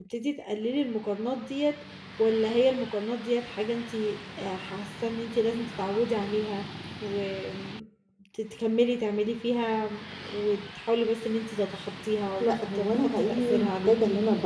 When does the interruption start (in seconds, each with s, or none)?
12.4 s